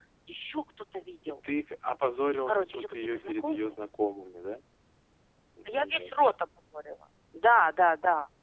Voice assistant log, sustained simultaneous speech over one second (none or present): present